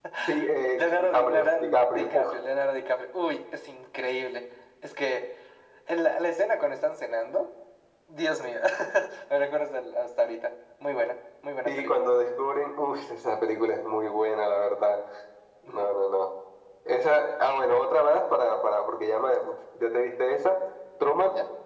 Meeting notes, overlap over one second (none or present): present